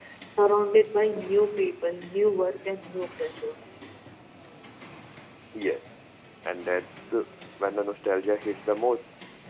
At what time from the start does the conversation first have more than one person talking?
none

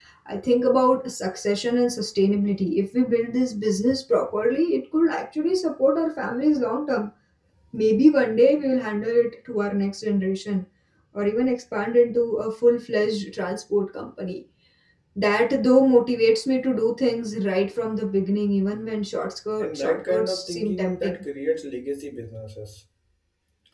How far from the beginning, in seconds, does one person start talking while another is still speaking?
19.6 s

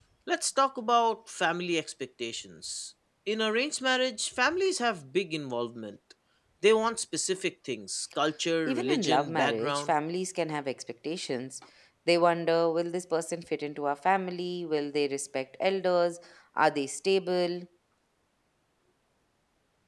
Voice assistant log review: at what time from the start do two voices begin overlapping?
8.6 s

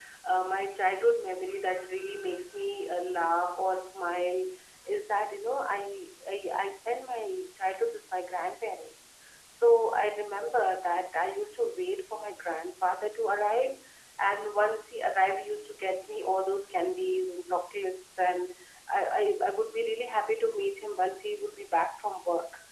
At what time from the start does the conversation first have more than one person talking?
none

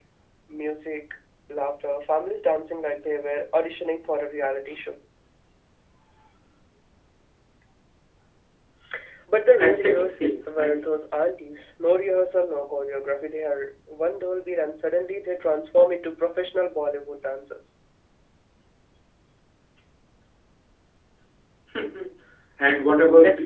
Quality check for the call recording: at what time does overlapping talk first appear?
9.6 s

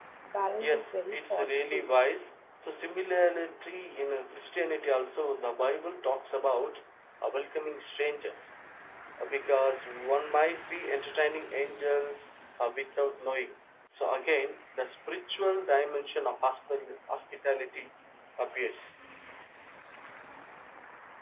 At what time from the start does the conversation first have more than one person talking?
0.6 s

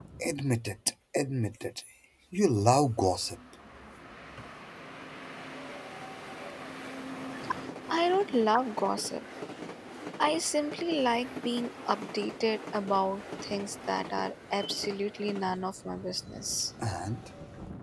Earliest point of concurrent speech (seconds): none

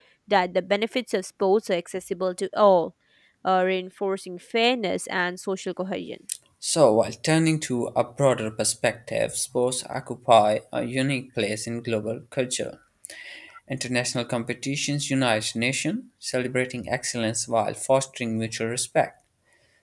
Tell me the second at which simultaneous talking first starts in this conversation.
none

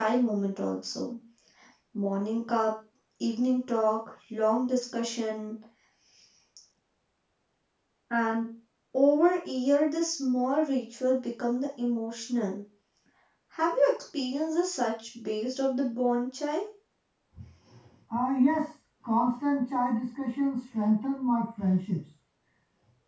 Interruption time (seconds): none

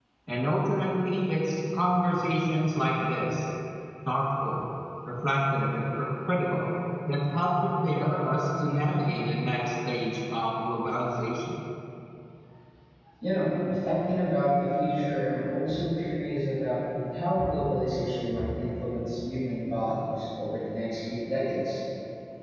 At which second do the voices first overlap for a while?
none

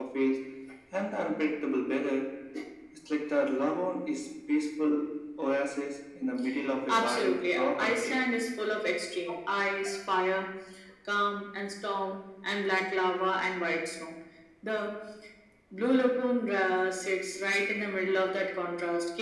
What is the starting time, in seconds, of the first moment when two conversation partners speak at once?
6.9 s

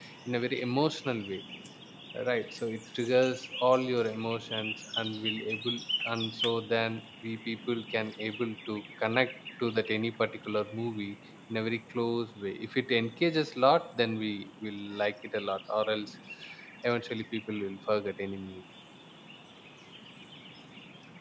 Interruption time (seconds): none

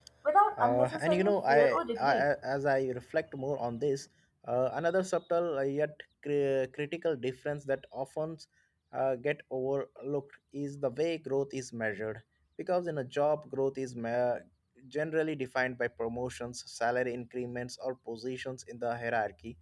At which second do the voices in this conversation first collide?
0.6 s

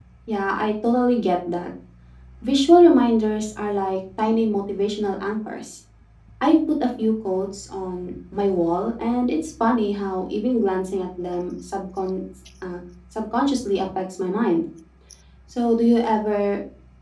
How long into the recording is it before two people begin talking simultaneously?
none

